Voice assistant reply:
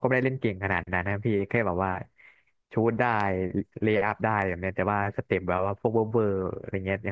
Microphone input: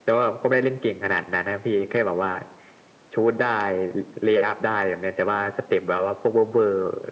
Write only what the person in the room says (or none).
none